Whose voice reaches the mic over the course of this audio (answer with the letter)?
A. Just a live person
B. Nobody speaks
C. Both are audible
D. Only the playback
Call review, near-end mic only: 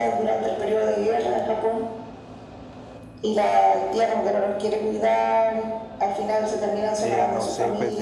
C